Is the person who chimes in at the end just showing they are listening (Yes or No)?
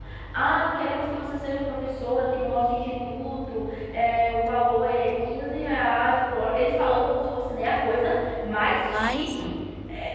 Yes